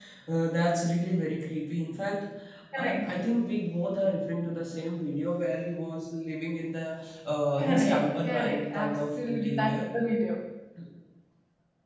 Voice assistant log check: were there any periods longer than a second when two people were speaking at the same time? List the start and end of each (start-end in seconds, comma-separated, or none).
7.6-9.7